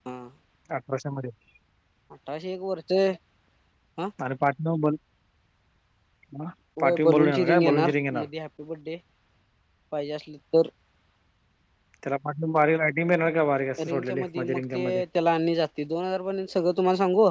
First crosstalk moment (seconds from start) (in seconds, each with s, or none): 6.8 s